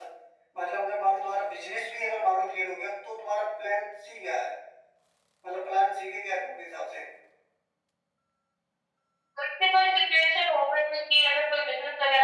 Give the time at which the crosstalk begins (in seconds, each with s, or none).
none